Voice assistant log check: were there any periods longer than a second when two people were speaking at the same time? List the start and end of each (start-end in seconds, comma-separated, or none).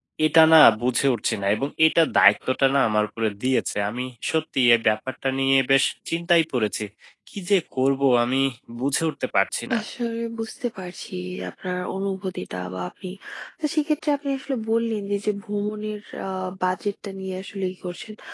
none